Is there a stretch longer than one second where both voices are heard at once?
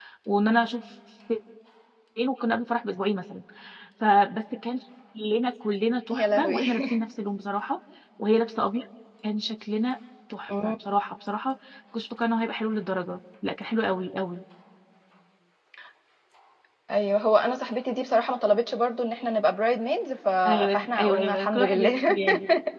Yes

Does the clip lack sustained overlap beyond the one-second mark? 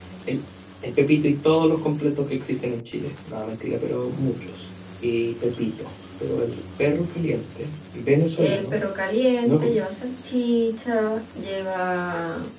Yes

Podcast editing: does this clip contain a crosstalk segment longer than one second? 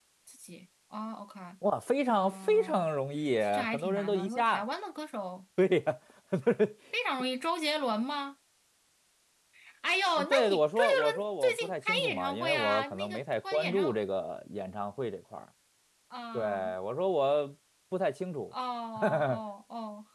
Yes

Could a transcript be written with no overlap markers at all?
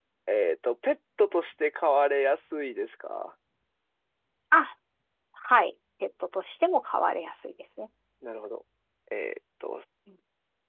Yes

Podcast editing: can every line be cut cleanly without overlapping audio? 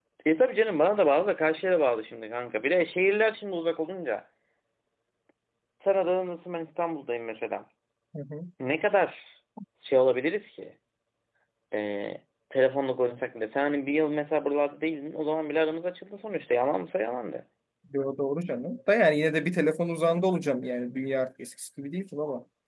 Yes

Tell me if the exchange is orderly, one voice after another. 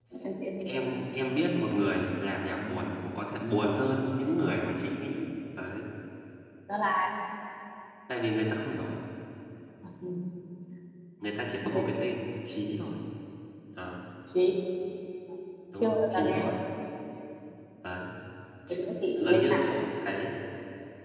No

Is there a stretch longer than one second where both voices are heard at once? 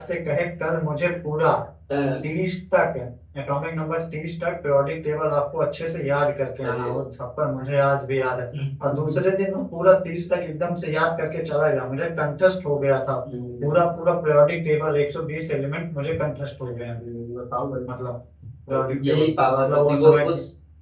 Yes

